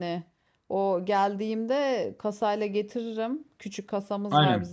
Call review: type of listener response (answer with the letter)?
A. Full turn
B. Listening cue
B